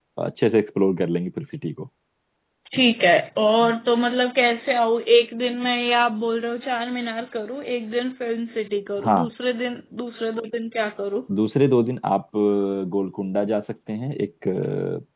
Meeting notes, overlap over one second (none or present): none